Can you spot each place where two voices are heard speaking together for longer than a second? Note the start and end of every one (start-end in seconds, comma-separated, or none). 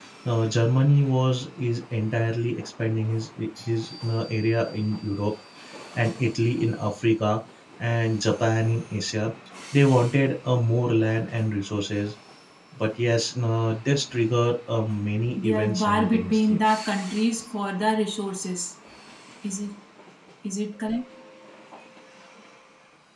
15.4-16.6